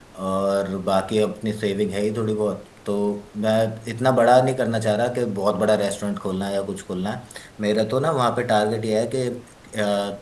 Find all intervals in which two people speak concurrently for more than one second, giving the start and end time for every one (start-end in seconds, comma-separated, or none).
none